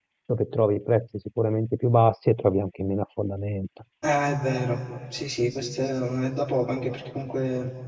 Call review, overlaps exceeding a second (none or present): none